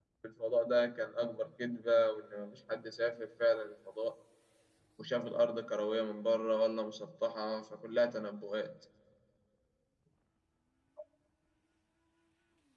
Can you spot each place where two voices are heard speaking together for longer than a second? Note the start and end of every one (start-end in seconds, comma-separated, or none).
none